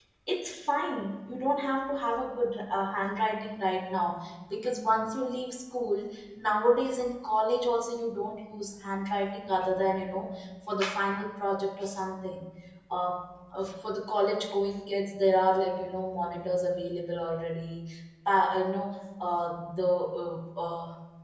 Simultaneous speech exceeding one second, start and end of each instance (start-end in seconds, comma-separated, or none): none